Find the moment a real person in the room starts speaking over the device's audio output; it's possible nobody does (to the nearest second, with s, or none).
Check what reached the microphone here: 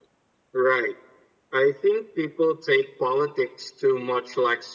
none